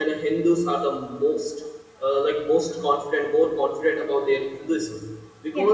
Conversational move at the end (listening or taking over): listening